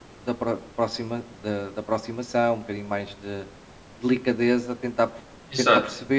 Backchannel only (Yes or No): Yes